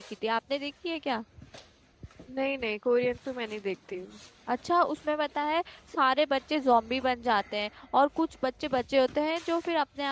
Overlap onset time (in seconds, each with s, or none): none